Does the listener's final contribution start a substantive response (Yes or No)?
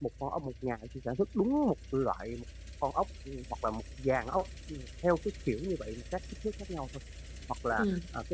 No